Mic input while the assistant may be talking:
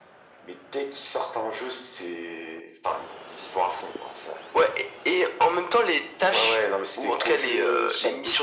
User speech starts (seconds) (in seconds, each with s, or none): none